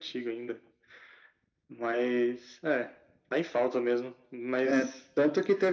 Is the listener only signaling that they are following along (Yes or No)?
No